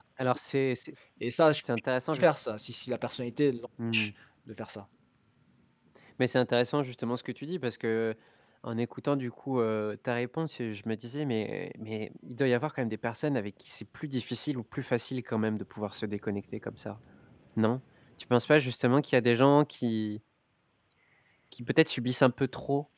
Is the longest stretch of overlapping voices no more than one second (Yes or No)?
Yes